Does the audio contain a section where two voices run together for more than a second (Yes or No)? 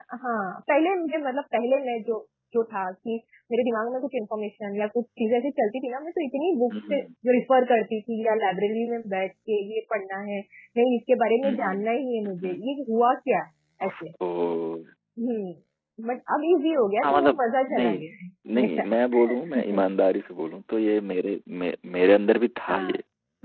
No